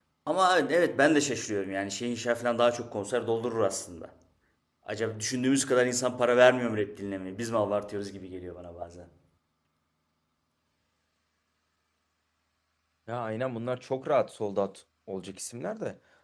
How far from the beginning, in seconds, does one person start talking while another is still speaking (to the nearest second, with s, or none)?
none